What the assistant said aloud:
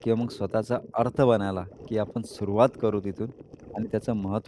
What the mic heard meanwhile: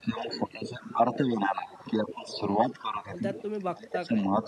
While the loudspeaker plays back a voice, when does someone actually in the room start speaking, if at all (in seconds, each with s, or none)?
3.1 s